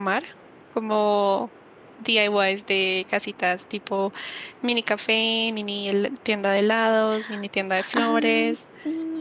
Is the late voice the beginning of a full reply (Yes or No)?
Yes